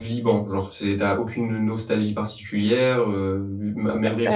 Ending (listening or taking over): listening